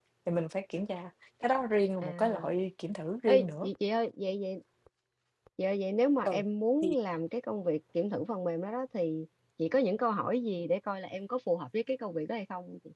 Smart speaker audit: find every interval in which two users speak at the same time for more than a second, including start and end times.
none

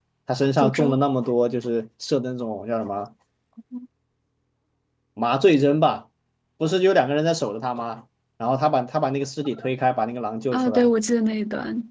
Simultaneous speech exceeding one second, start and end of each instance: none

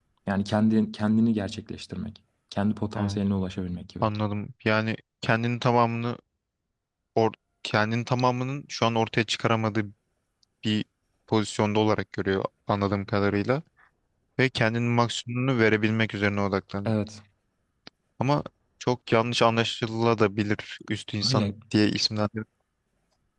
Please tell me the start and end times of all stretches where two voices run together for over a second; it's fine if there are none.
none

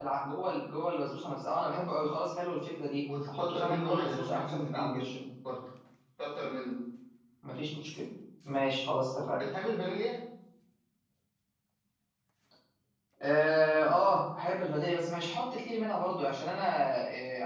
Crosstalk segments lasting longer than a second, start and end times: 3.3-5.2

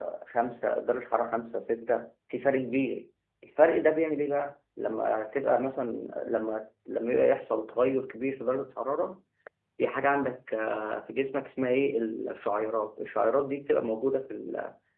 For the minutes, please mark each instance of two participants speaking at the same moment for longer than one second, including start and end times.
none

